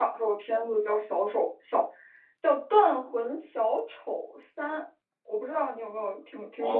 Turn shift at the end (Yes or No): Yes